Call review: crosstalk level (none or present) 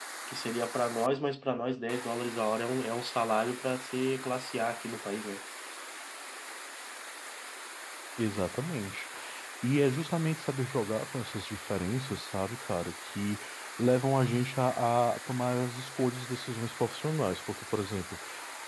none